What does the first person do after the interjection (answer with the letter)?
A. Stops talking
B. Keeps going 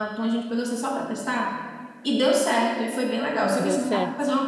B